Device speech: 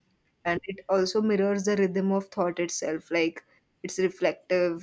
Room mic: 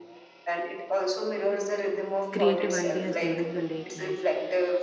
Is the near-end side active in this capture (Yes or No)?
Yes